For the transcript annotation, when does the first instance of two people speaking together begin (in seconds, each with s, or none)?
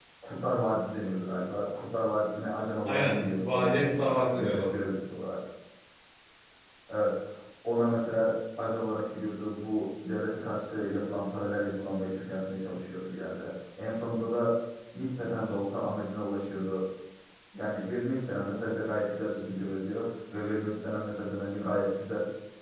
2.9 s